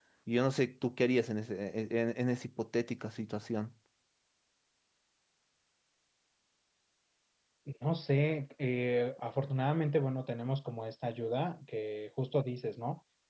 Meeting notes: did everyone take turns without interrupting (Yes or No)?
Yes